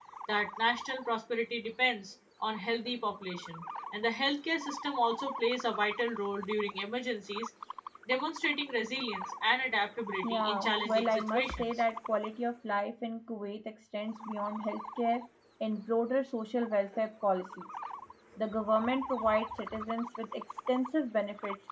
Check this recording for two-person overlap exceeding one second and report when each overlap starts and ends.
10.2-11.6

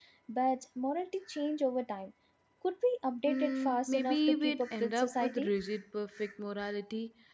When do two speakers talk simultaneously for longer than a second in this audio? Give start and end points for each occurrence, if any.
3.3-5.5

